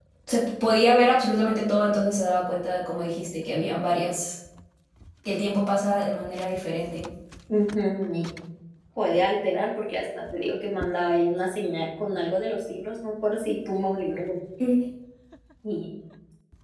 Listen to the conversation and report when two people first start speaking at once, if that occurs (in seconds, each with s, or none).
none